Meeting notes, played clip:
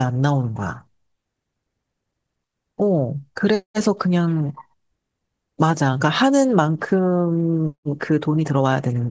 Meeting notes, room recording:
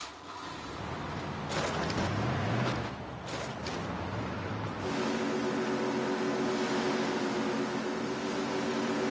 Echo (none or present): none